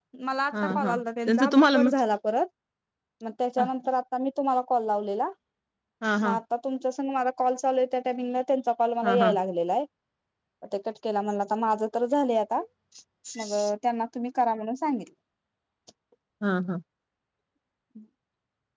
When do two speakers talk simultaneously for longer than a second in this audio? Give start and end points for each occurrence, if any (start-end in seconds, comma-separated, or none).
0.6-2.0